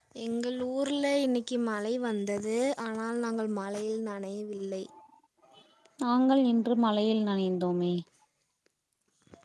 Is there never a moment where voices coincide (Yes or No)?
Yes